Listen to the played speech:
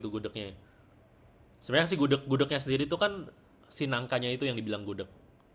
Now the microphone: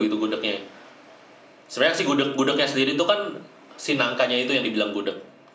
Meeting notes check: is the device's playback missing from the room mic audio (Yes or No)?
No